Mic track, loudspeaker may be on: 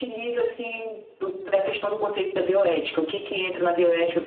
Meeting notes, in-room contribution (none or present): none